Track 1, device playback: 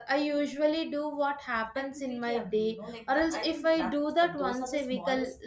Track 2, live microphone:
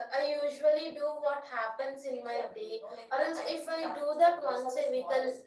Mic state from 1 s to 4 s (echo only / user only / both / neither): echo only